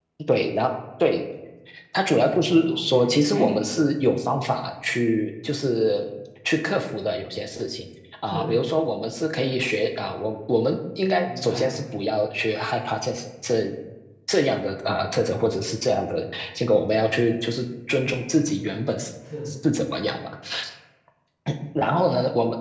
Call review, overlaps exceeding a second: present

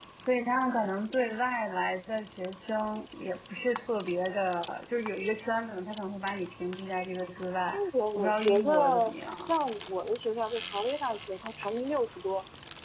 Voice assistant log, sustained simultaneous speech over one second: present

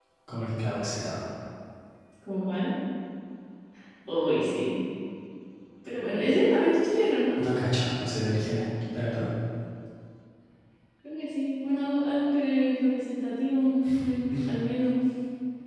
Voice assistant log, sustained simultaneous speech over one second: none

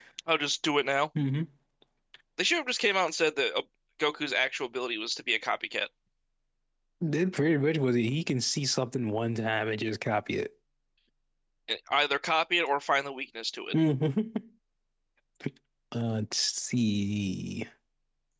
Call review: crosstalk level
none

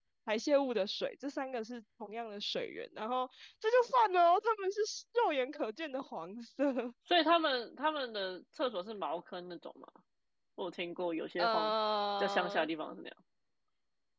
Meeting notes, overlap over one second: none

